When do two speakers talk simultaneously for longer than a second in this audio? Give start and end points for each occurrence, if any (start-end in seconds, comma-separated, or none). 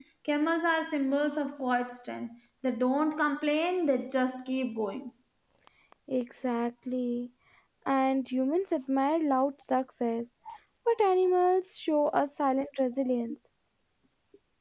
none